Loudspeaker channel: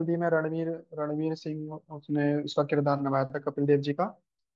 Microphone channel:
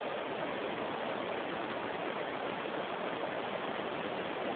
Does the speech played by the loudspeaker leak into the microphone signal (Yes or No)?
No